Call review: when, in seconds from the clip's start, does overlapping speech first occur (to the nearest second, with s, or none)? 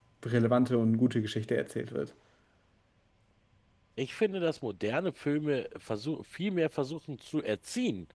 none